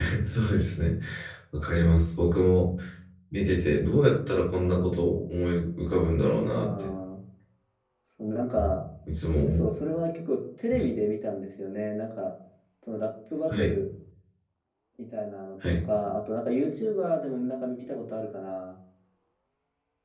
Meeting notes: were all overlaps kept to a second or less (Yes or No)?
Yes